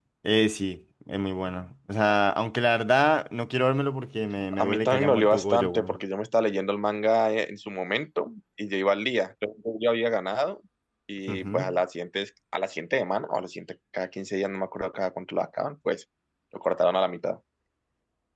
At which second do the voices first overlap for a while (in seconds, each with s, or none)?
4.5 s